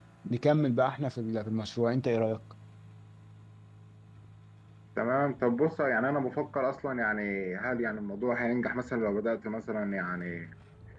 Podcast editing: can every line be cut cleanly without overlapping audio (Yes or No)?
Yes